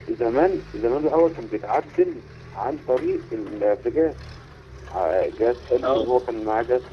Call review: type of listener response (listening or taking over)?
listening